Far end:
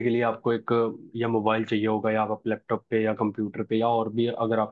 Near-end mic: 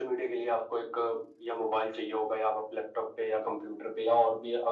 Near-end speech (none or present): none